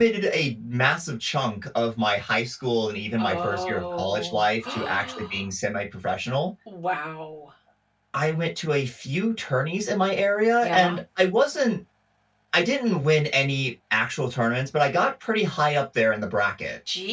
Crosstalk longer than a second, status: present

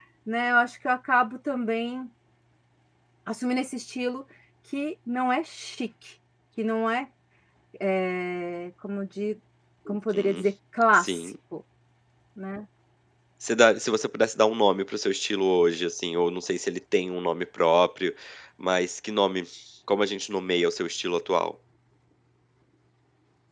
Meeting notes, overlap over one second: none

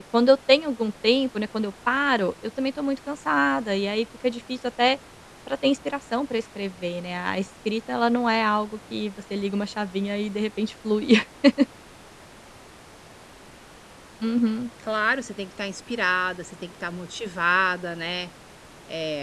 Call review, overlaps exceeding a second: none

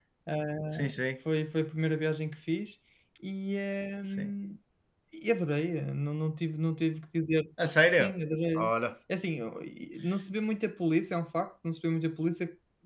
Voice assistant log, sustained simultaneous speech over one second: none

